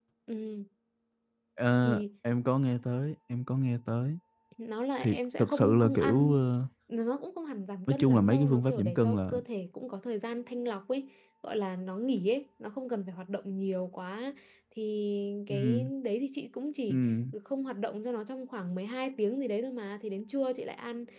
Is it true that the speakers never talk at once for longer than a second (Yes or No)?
No